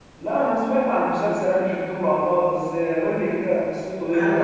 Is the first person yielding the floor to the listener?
Yes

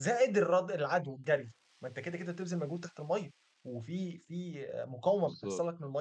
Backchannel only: Yes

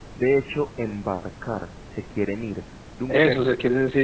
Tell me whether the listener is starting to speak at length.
Yes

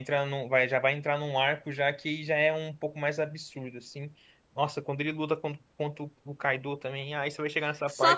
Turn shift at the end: Yes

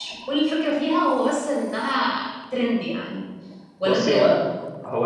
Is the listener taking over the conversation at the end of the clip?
Yes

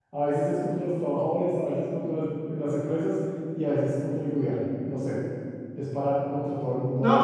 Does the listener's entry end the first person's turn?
Yes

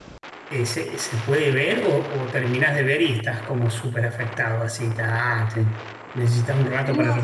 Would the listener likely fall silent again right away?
No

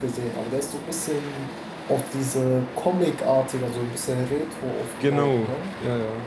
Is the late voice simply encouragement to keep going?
No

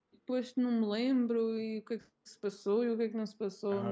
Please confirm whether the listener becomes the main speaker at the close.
Yes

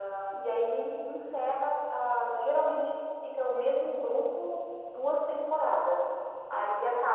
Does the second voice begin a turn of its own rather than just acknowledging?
No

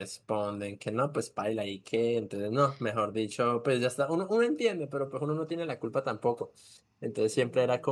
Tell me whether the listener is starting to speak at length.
No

